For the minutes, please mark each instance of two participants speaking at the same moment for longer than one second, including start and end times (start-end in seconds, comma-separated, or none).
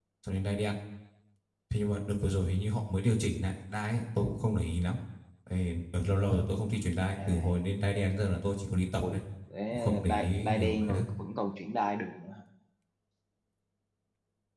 9.7-11.1